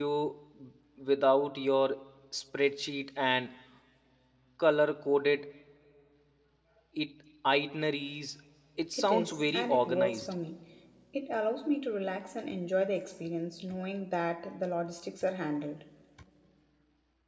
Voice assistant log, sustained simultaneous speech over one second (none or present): present